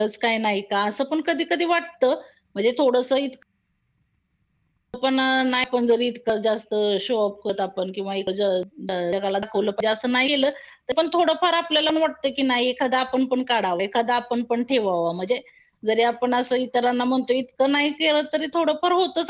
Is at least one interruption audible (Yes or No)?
No